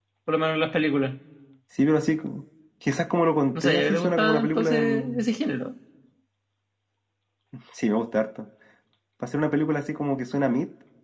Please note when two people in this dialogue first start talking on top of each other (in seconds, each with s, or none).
3.5 s